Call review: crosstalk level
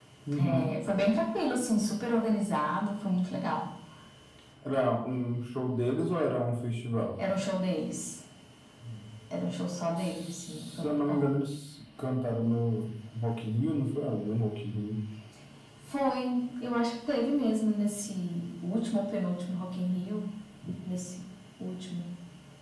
present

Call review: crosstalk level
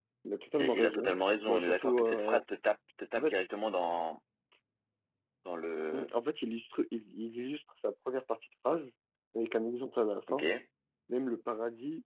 present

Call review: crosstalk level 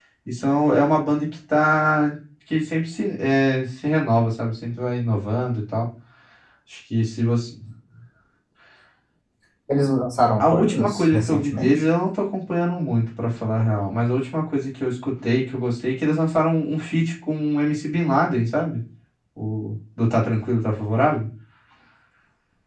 present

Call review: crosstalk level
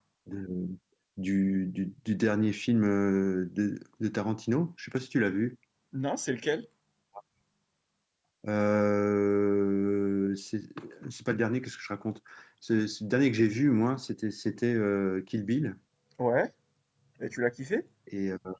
none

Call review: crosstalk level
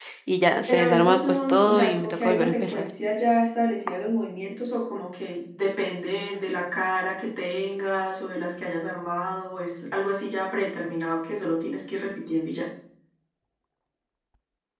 present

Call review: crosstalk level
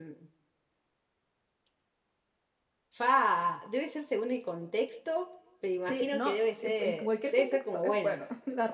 present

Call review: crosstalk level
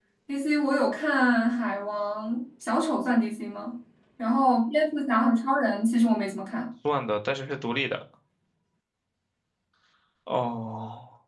none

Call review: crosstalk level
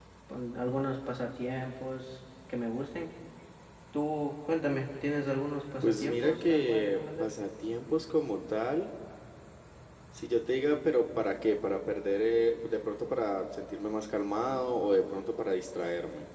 present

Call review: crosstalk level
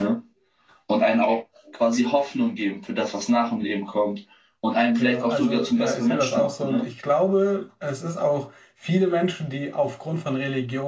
present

